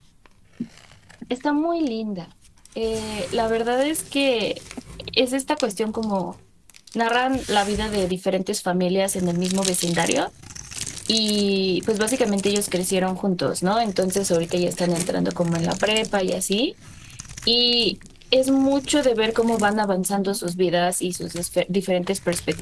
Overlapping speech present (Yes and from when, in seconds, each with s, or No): No